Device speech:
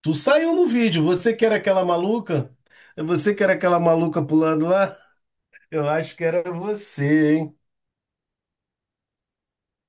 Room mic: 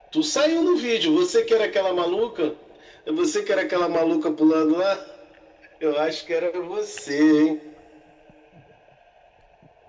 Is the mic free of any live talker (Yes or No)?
Yes